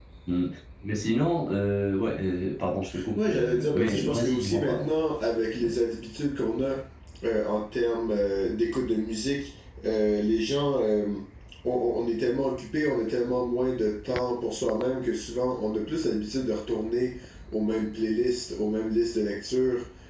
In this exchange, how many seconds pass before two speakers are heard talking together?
2.9 s

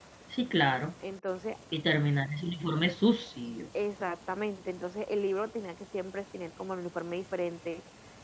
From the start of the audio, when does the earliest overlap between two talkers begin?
none

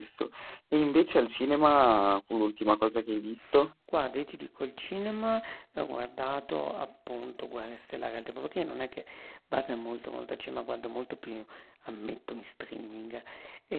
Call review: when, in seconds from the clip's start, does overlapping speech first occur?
none

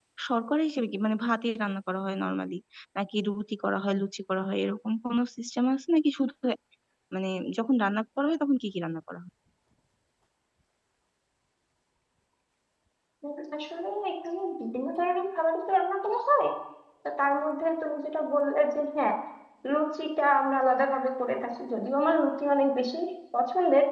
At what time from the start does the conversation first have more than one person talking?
none

